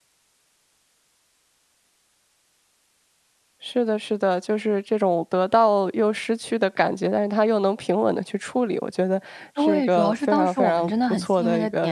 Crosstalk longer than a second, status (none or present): present